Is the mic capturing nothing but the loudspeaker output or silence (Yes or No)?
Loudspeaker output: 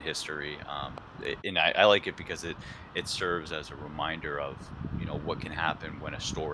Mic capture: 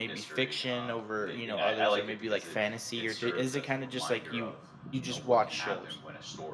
No